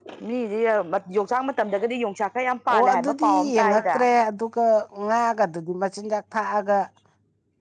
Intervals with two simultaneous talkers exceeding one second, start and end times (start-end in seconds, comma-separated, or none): 2.7-4.0